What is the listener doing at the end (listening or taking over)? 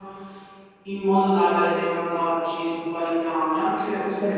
taking over